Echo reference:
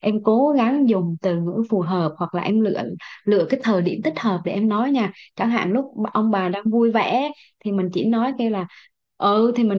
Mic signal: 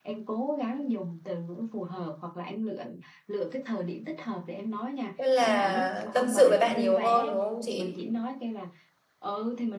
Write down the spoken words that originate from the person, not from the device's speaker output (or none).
Tức là tâm sự với bạn nhiều hơn đúng không chị?